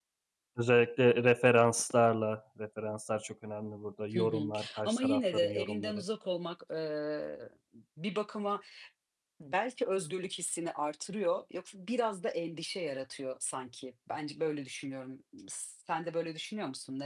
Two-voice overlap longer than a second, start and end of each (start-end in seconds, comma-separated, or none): 4.1-6.0